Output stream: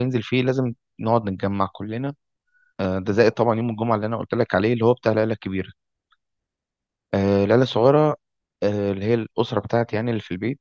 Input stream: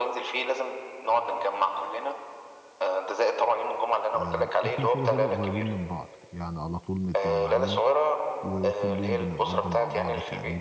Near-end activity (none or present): present